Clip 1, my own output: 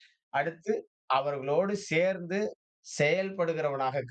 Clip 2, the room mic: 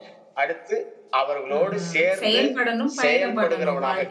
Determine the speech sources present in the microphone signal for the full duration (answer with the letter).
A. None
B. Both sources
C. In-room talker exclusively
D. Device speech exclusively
B